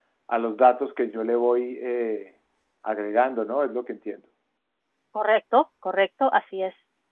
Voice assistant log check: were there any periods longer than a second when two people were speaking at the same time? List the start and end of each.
none

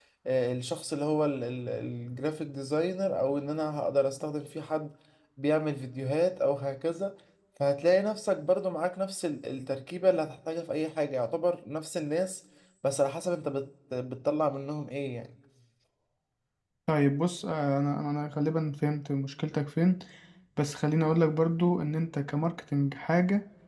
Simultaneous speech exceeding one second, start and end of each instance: none

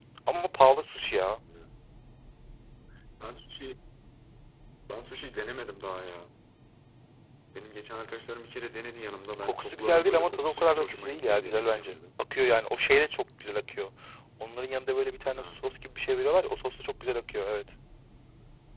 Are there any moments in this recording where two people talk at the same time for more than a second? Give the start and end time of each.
9.4-11.9

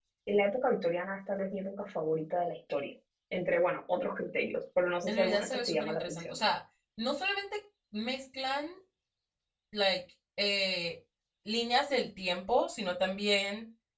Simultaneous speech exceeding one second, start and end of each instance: 5.1-6.4

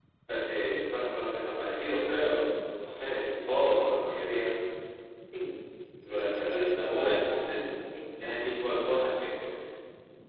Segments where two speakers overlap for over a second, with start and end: 6.0-7.6

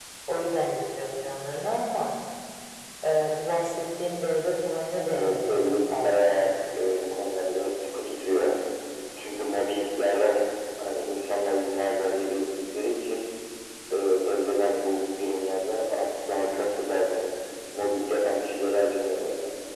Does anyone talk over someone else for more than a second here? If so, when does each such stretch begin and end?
5.1-6.4

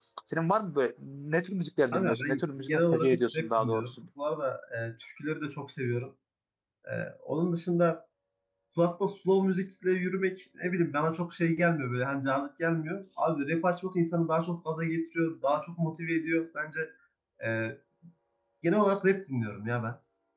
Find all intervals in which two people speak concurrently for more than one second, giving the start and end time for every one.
1.9-3.9

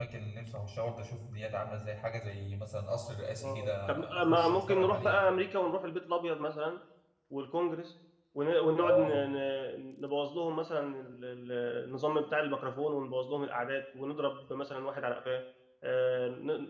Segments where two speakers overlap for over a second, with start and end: 3.4-5.2

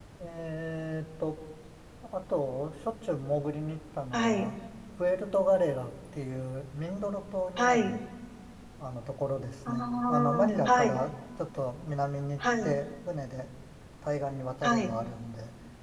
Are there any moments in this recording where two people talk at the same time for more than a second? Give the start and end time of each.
9.7-11.0

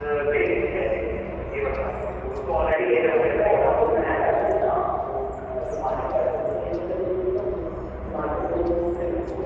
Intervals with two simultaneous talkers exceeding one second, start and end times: 2.8-4.3

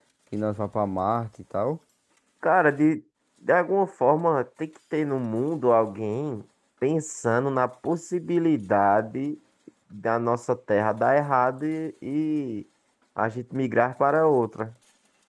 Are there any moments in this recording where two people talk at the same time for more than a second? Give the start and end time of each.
none

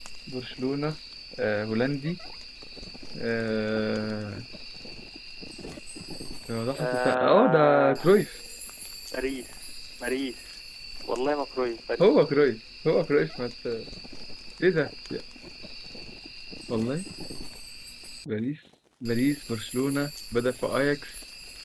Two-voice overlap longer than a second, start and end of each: 6.7-8.2

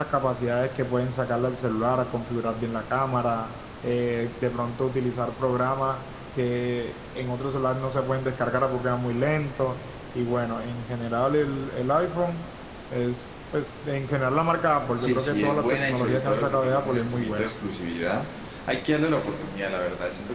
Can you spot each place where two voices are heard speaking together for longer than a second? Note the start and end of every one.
15.0-17.5

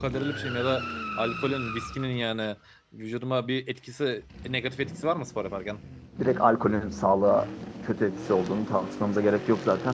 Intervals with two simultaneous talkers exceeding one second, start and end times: none

